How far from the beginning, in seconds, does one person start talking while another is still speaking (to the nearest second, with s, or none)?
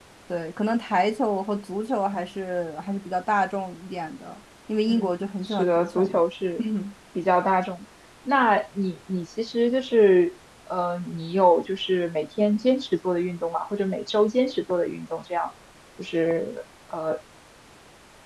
5 s